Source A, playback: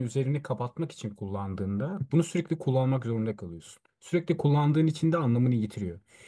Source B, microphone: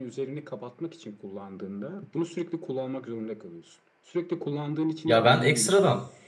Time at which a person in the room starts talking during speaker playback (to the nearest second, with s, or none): 5 s